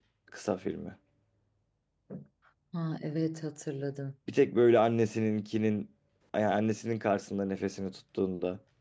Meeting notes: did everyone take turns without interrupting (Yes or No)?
Yes